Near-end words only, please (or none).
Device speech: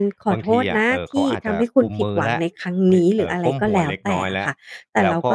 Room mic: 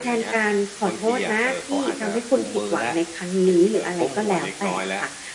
none